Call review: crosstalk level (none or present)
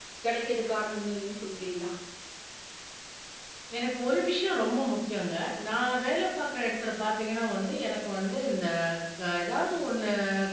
none